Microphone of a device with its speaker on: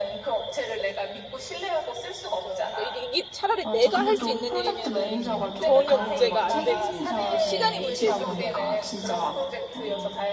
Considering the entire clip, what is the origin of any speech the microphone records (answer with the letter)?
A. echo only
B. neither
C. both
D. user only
C